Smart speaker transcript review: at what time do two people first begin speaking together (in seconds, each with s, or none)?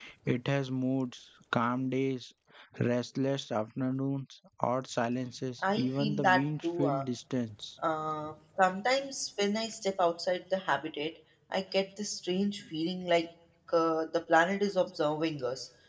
5.6 s